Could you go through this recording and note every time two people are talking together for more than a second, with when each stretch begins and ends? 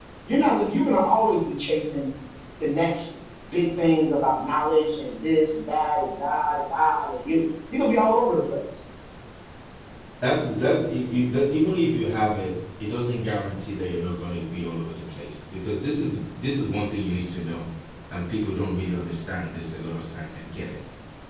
none

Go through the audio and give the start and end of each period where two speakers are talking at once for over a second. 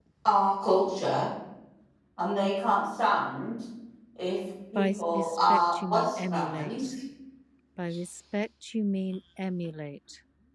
4.8-6.9

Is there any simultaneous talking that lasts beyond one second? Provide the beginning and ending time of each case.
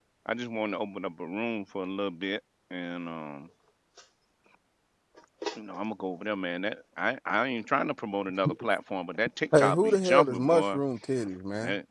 9.6-10.8

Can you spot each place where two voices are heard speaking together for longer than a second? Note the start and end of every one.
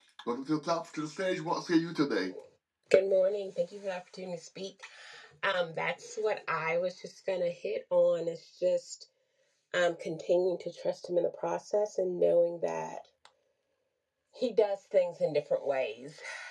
none

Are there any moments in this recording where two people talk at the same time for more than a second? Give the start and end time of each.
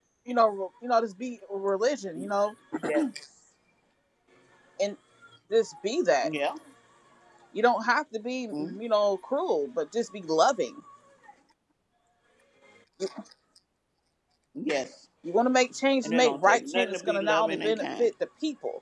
16.0-18.1

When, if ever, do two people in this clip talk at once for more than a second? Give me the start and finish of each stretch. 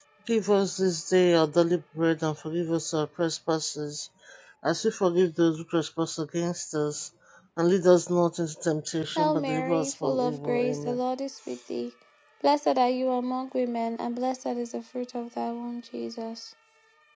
9.2-11.0

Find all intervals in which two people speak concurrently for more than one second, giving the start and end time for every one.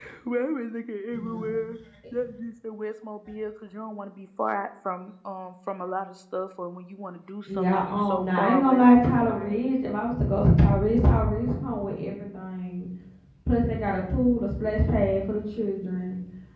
7.5-9.7

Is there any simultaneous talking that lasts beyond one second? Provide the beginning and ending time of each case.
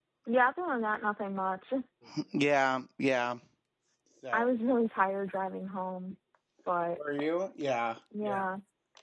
none

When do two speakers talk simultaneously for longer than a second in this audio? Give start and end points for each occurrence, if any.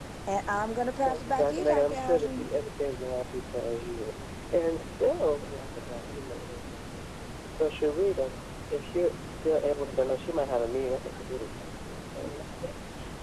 1.1-2.5

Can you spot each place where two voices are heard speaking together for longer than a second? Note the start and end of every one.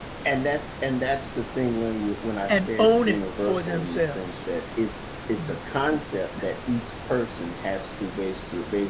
2.5-4.5

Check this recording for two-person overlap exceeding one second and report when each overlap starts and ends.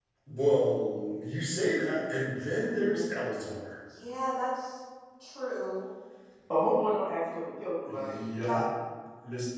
none

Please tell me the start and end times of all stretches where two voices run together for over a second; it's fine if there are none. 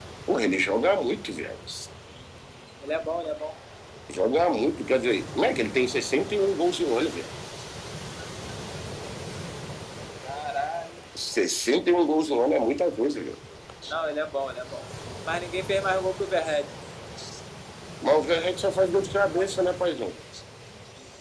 none

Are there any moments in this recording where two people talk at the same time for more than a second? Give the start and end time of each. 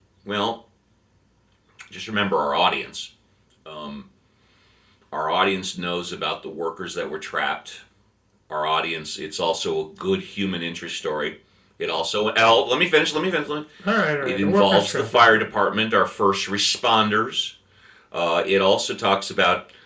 14.2-15.5

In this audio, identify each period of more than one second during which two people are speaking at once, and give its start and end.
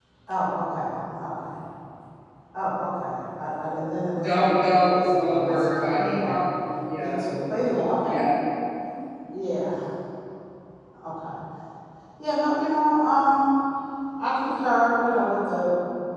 4.9-6.4

